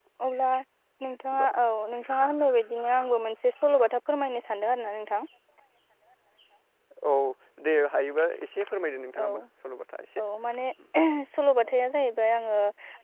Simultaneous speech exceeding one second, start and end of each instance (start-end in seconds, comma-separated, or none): none